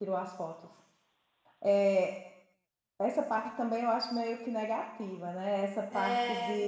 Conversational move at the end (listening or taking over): listening